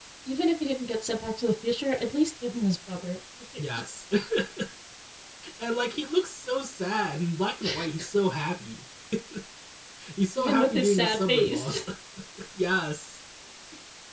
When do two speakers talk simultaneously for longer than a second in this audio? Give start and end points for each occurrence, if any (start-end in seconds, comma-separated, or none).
10.4-11.8